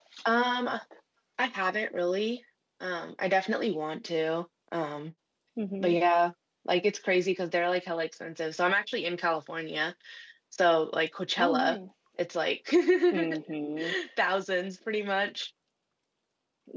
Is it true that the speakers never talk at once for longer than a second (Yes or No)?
Yes